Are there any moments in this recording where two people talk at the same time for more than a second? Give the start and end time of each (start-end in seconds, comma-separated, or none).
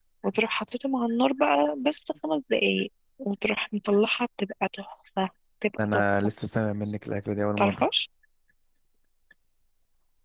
none